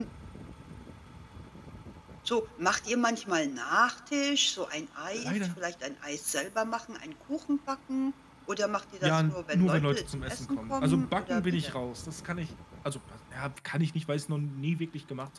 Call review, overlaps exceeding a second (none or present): present